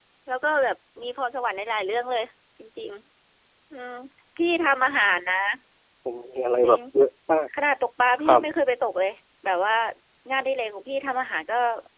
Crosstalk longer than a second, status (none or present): none